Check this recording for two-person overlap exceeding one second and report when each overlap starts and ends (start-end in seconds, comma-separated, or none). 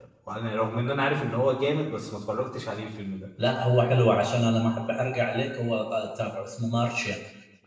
none